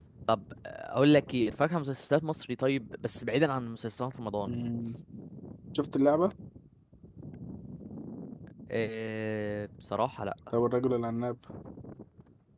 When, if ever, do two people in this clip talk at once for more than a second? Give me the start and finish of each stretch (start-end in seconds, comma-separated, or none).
none